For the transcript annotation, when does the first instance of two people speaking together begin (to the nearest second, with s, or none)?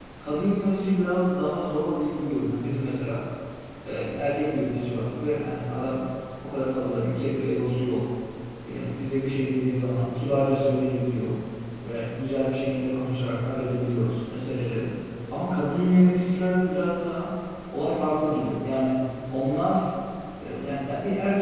none